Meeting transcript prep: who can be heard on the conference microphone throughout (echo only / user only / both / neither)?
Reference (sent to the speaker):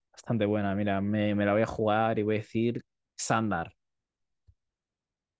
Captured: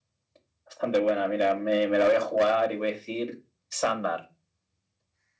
echo only